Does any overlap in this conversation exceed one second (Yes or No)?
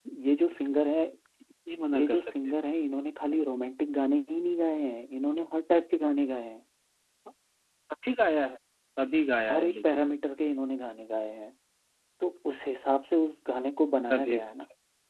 No